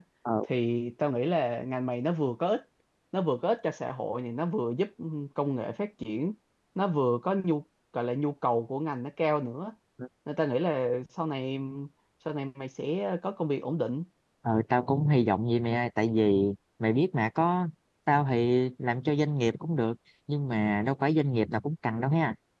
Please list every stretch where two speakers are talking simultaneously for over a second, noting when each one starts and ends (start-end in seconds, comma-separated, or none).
none